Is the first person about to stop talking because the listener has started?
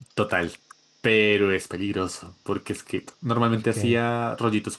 No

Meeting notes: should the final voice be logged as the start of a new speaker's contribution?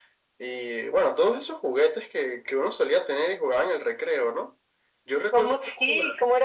Yes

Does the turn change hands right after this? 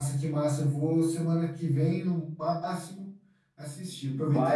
No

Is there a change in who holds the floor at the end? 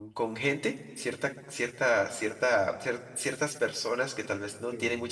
No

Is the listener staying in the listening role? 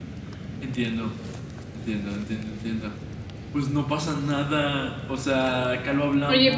No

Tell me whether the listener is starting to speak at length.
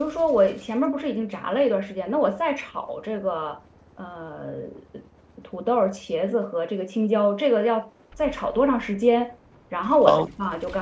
No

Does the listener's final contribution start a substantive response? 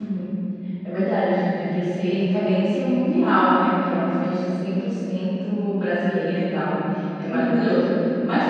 No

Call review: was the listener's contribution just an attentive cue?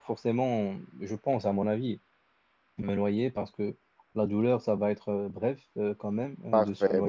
No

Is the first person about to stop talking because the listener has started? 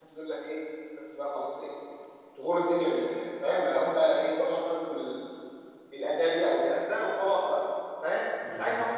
No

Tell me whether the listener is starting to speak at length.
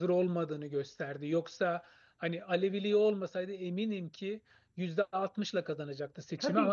No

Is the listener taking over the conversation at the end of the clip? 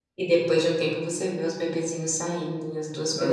Yes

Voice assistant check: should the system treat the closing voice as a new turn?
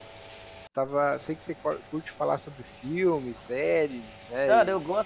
Yes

